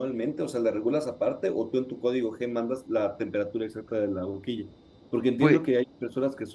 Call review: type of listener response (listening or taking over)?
listening